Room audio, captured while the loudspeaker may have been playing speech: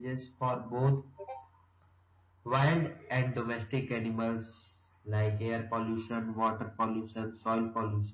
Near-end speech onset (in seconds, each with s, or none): none